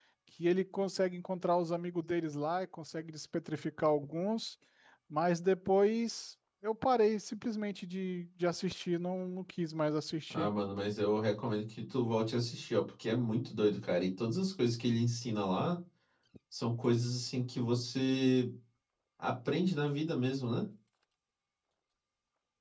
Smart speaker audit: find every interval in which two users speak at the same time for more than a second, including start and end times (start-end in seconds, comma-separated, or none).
none